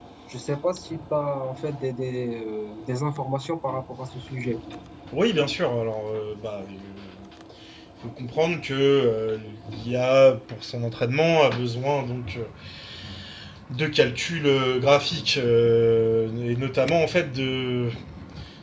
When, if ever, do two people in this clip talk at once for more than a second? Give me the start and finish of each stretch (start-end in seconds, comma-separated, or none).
none